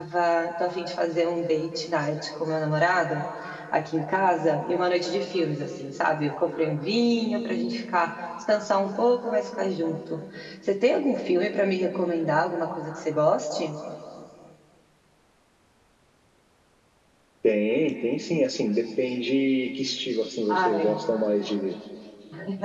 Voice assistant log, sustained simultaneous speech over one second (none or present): none